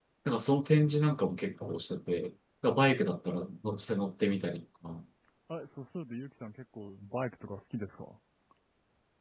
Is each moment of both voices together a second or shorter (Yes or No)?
Yes